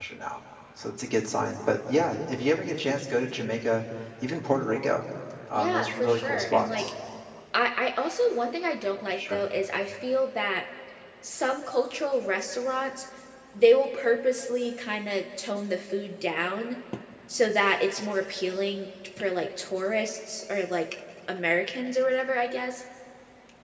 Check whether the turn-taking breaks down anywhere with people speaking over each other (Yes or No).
Yes